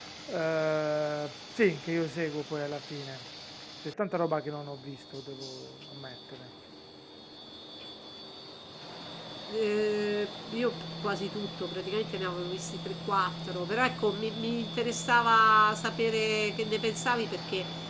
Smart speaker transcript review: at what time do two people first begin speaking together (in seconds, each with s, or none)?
none